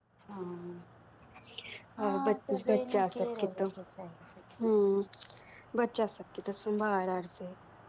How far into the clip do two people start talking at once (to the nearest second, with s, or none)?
2 s